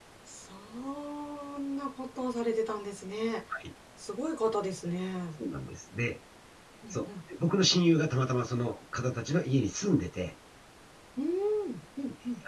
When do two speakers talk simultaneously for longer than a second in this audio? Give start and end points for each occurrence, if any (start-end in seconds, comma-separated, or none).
none